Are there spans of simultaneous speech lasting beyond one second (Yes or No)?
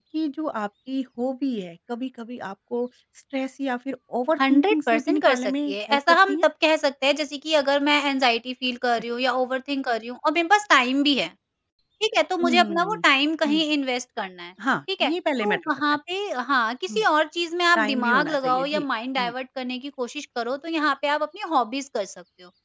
Yes